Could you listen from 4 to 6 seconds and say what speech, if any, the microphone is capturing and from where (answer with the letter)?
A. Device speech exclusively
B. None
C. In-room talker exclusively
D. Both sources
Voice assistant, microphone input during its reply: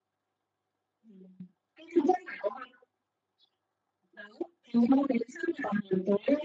A